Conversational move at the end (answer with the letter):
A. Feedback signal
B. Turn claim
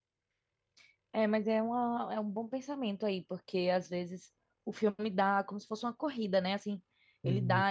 A